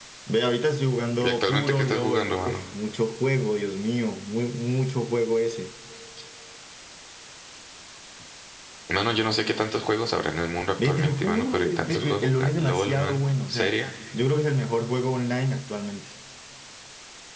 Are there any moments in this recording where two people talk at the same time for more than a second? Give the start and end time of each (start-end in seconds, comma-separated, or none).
1.2-2.6, 10.8-13.7